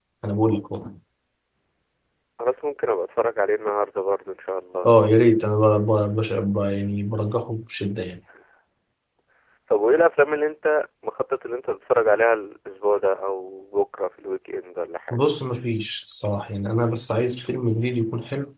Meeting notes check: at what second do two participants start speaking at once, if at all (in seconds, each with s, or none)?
none